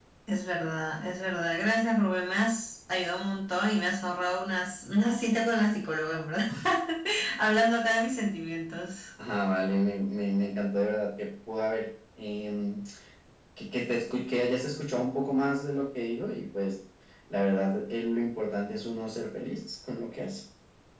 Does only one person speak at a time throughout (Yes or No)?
Yes